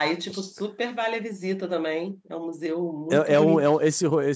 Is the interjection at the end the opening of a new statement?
Yes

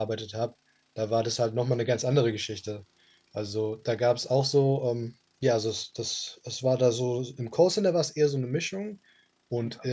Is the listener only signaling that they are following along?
Yes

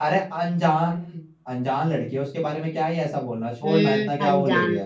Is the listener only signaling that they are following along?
No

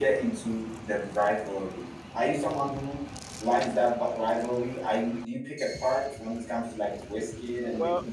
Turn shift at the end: Yes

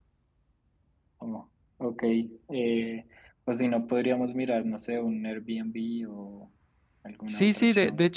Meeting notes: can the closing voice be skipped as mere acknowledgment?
No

